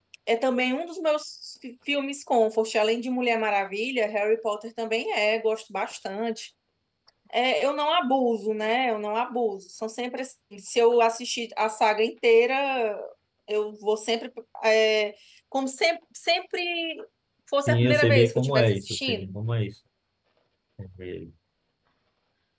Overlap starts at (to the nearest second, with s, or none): 18 s